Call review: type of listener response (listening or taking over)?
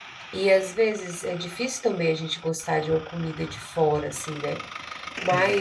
listening